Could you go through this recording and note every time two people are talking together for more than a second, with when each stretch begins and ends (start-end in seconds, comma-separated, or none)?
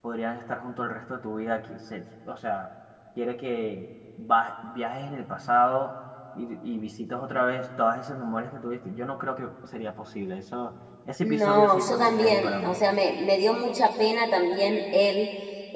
11.2-12.8